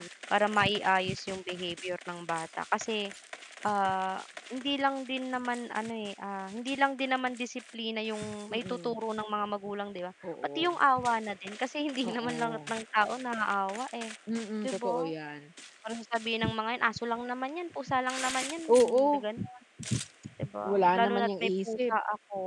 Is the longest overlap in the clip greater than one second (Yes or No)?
Yes